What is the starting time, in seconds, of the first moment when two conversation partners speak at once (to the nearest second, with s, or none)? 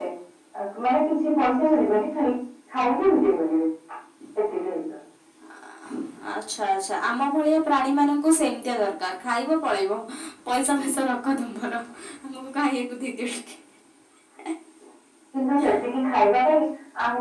none